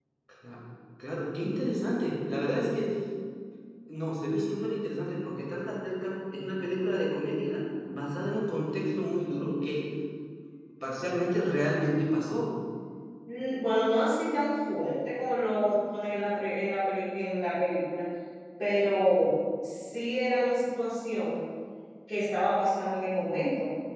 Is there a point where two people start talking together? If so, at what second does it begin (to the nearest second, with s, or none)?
none